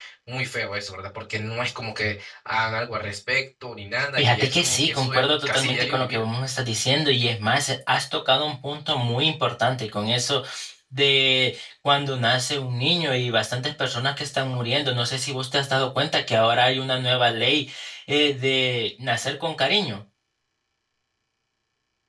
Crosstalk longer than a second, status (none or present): present